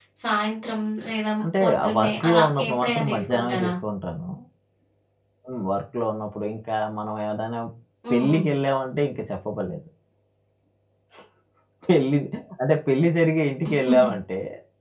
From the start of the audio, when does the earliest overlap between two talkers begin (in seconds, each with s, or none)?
1.4 s